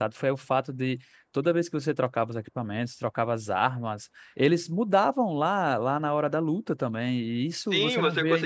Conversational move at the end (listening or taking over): taking over